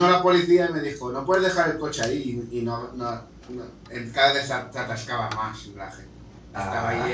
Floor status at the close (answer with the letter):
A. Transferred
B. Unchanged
B